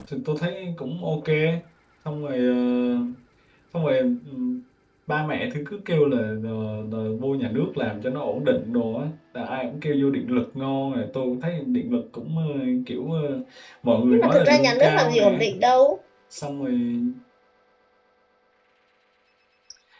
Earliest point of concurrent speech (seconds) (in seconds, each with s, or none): 14.1 s